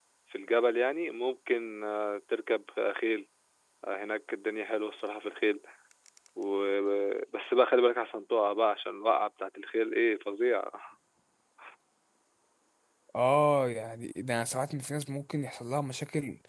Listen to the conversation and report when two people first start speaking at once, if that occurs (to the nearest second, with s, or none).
none